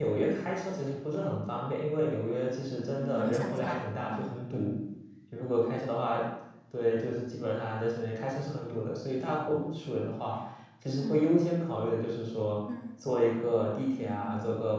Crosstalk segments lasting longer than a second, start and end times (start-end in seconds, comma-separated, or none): 3.0-4.3